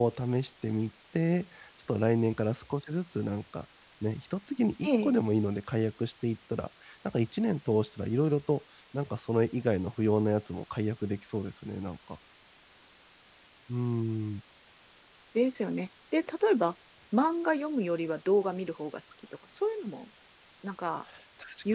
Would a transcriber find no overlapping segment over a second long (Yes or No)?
Yes